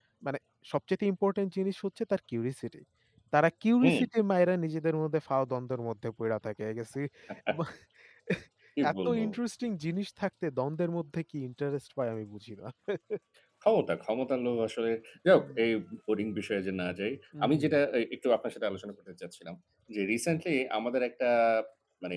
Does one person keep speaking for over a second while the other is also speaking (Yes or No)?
No